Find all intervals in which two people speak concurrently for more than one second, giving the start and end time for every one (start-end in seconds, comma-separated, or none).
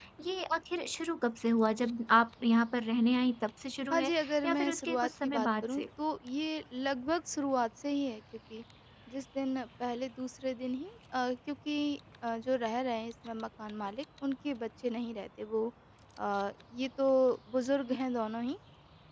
3.9-5.8